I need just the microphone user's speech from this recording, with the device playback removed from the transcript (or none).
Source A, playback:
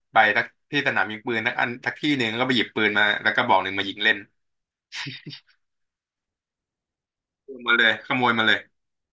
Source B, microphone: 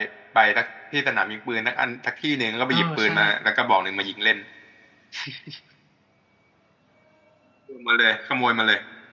เออใช่